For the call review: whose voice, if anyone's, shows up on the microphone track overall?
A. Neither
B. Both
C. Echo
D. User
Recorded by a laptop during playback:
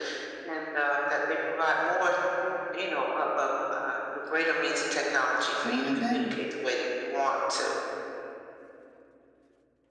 B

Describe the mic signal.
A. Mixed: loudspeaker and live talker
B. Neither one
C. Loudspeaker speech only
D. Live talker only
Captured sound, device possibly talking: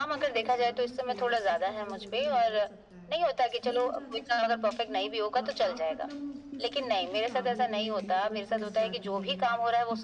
A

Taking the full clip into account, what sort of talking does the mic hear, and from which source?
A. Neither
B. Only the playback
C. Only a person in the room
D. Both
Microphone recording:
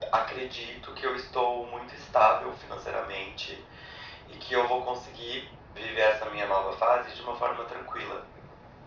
B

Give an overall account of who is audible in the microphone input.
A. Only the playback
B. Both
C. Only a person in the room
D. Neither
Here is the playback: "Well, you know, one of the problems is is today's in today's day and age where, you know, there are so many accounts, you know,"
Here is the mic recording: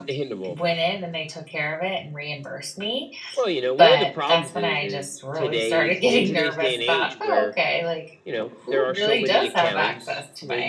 B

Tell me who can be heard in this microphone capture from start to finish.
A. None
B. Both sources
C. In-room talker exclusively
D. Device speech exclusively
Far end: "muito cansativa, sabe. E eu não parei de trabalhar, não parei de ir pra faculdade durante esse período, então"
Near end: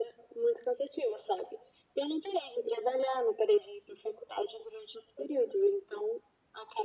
D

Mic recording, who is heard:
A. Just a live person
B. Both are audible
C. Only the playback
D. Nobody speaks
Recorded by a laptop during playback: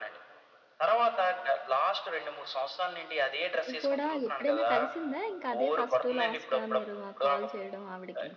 B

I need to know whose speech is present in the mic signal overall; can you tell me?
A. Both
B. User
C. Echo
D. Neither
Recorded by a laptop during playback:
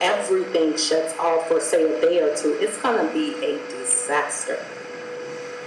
C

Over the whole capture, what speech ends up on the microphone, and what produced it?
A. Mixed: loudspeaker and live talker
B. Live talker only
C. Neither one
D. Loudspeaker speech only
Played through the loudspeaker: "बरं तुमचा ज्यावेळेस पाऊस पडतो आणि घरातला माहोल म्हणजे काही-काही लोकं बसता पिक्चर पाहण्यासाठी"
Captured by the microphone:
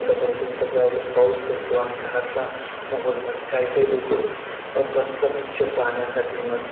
D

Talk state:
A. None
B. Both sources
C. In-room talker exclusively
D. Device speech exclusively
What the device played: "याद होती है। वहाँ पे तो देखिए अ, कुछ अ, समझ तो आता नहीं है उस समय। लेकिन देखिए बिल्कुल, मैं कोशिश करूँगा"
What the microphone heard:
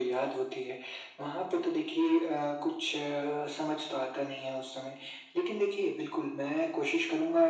D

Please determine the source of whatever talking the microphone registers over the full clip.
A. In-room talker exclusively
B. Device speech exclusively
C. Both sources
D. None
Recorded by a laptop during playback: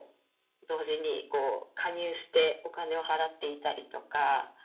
B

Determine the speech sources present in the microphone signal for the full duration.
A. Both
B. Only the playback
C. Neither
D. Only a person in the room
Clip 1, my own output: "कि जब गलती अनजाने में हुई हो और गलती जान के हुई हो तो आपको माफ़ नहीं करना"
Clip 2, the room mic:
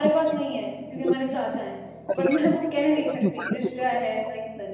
A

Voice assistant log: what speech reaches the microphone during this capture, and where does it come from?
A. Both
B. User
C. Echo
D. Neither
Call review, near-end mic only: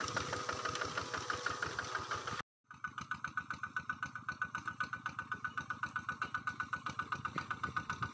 D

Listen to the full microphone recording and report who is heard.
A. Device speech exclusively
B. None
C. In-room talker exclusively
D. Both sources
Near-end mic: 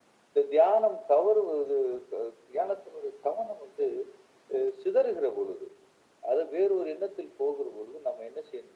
A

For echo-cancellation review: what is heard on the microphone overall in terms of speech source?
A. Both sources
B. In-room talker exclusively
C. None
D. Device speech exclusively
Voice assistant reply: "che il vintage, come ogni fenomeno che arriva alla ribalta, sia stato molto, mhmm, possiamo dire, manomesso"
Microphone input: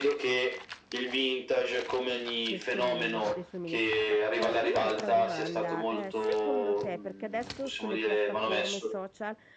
A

